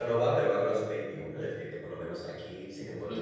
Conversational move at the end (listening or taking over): taking over